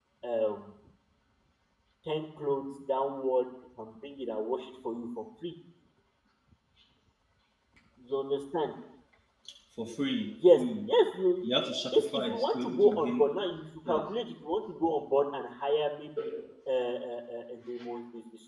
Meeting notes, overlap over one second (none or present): present